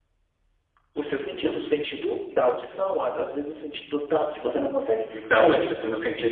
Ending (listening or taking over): taking over